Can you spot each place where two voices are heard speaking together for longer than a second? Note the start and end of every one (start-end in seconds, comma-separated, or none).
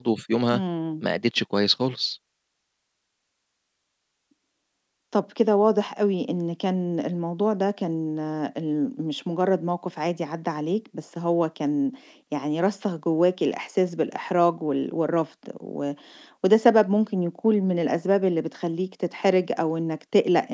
none